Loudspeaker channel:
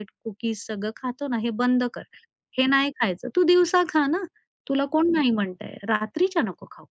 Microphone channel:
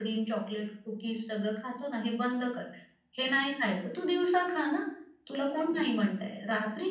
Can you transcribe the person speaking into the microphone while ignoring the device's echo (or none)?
none